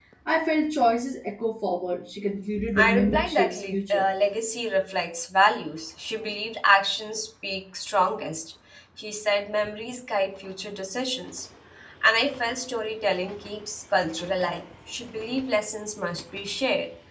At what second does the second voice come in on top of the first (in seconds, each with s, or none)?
2.6 s